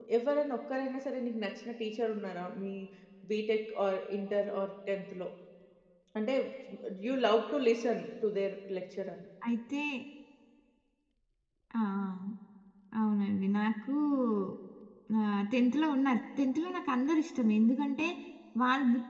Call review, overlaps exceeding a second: none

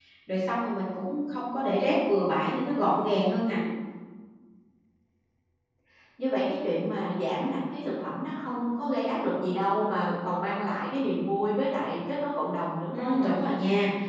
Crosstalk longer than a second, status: none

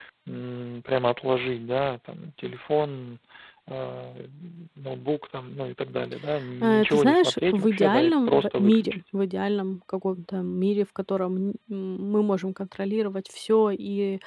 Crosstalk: present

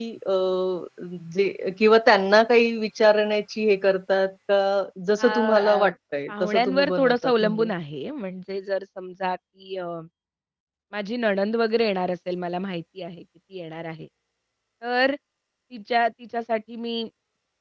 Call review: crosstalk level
present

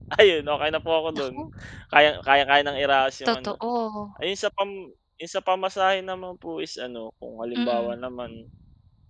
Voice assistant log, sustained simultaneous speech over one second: none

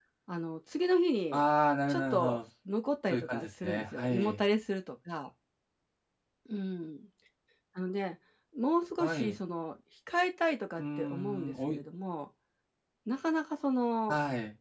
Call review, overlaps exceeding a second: present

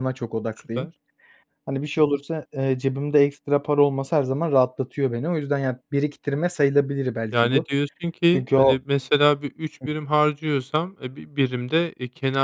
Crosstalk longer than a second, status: none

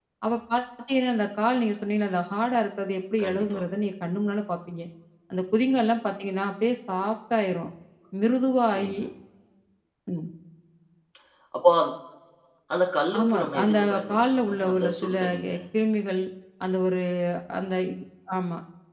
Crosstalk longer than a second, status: present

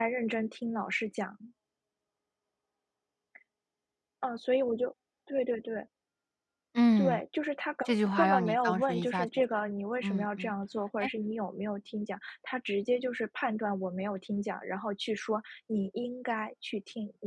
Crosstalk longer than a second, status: present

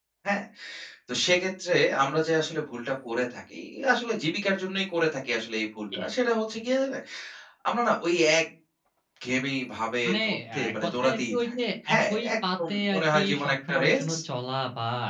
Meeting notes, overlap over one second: present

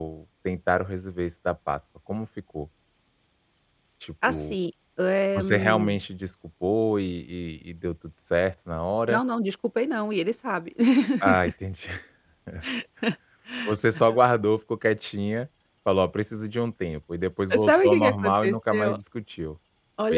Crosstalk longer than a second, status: present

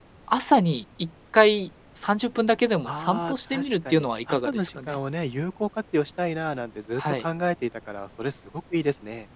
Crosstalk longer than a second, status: present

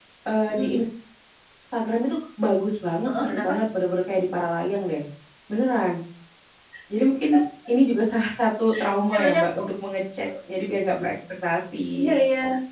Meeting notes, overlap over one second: none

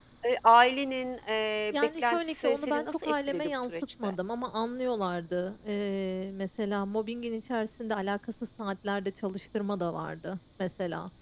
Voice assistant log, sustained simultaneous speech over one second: present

